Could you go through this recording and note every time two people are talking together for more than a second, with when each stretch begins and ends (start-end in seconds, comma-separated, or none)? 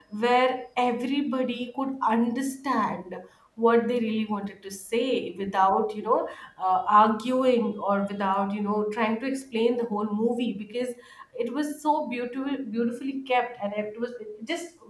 none